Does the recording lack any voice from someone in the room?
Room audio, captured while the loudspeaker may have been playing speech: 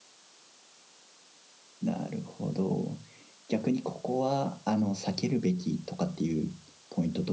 No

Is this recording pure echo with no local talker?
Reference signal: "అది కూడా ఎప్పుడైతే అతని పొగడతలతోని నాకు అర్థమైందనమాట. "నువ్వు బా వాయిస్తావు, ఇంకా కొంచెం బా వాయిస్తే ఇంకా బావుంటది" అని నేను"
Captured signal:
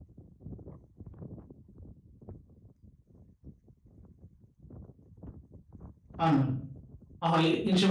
No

